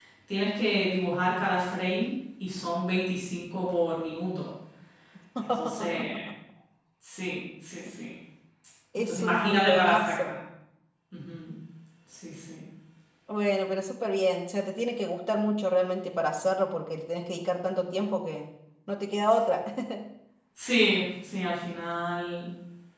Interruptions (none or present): present